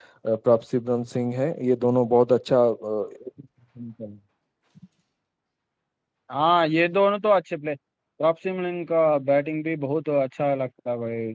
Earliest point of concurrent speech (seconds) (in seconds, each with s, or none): none